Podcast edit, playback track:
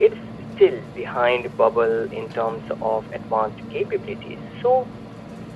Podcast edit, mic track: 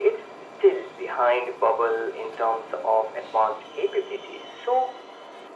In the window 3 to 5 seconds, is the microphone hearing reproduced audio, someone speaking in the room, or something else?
echo only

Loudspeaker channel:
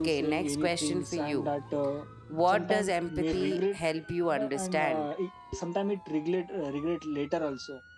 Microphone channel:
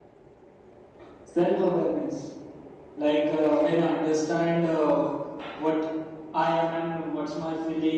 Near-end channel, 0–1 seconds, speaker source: neither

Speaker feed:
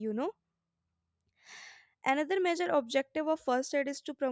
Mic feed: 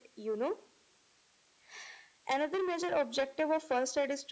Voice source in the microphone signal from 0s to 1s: echo only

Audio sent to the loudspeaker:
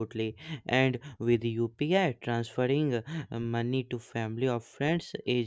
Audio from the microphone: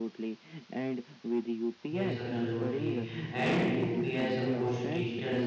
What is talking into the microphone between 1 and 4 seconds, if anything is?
both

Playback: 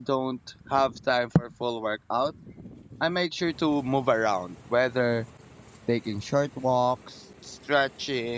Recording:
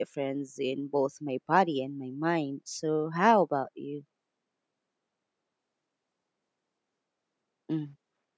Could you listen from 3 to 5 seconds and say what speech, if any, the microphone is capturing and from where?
user only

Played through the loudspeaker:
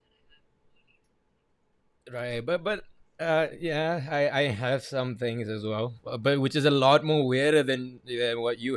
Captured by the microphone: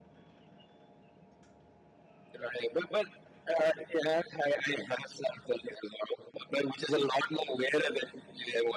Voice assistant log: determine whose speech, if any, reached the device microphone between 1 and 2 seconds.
neither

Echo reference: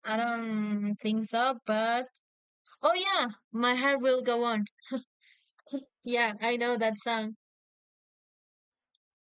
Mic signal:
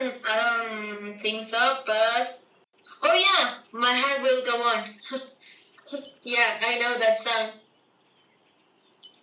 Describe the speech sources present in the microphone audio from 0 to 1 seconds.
echo only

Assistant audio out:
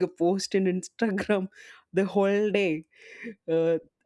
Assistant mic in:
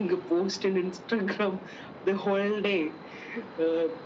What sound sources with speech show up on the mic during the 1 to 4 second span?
echo only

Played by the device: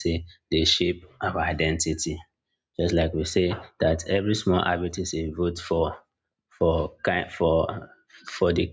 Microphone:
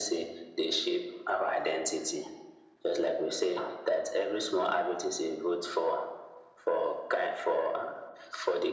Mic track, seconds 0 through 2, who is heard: echo only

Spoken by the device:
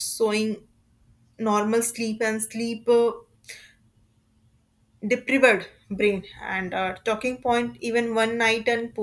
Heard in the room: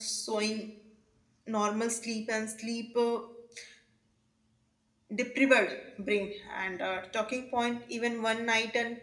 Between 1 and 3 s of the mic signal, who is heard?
echo only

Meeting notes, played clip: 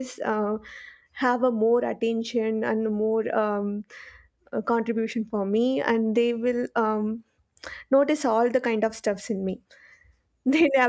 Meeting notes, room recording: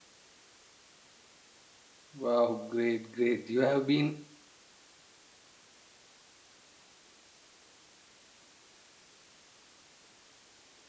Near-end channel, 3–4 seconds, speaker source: user only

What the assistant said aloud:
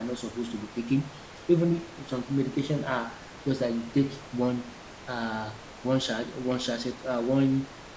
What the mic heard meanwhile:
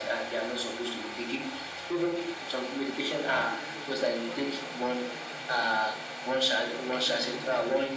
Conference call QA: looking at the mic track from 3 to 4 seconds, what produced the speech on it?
both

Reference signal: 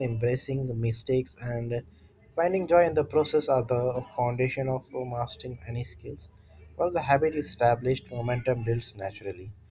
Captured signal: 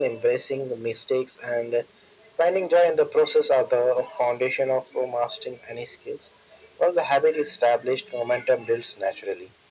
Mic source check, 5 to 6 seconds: echo only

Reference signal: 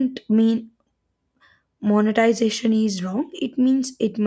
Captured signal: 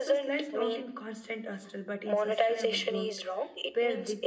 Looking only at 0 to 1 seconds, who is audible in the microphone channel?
both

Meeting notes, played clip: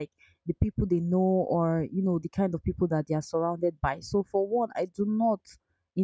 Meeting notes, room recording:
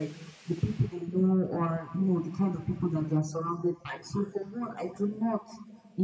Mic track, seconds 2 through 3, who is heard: echo only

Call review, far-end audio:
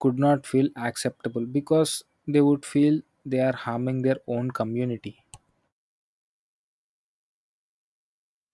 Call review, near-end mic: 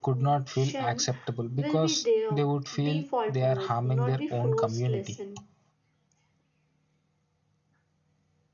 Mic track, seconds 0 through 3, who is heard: both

